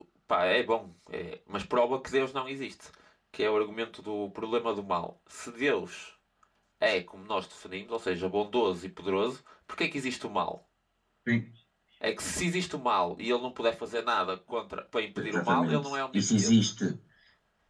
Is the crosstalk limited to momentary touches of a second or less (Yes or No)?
No